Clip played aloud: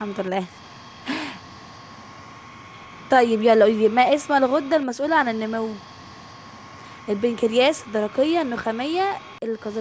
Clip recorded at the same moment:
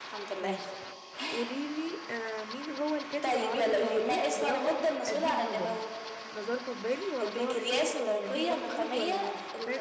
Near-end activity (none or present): present